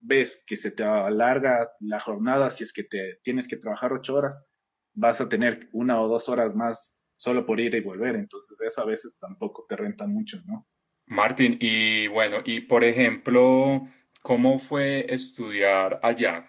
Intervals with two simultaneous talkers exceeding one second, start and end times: none

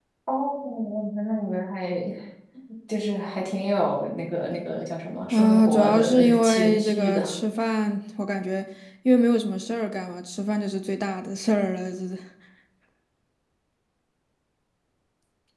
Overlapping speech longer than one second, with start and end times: 5.3-7.3

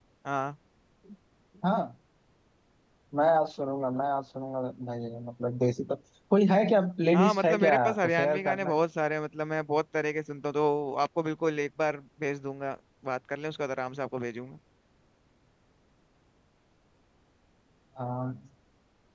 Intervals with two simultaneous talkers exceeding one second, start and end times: 7.1-8.8

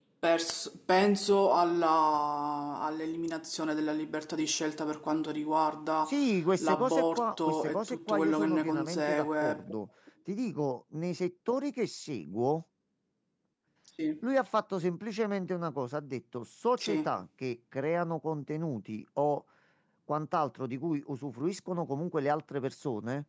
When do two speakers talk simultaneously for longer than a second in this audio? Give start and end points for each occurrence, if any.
6.6-9.6

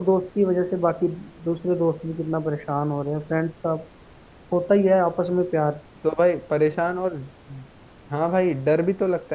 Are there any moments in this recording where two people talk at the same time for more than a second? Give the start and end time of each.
none

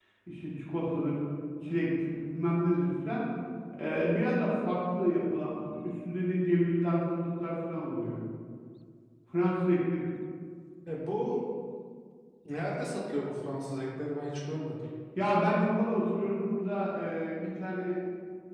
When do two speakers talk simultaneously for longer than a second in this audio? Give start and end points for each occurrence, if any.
none

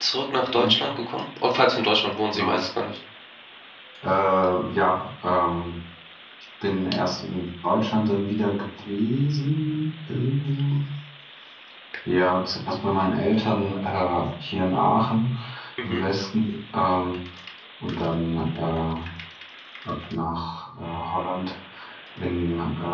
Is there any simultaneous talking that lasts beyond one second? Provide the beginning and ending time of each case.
none

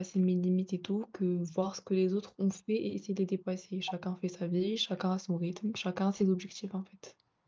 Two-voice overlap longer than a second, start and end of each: none

